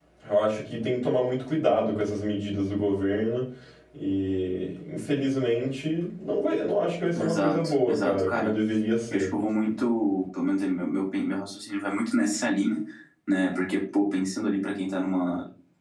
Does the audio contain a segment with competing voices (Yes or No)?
Yes